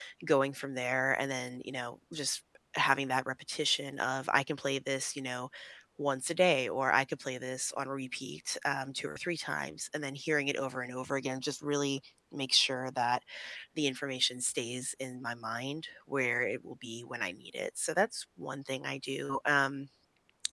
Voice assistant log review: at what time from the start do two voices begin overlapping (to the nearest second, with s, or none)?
none